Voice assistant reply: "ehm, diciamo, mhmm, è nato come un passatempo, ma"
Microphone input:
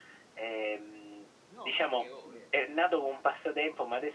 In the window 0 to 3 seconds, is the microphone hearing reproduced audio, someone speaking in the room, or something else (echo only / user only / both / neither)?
both